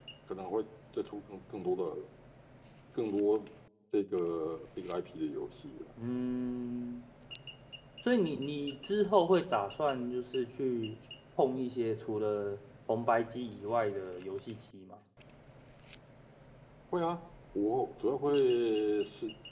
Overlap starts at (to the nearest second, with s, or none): none